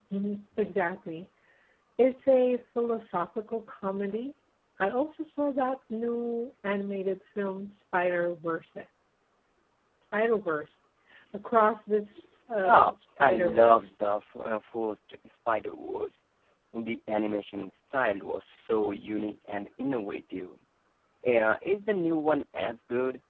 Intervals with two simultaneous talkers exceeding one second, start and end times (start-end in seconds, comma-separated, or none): 12.6-13.9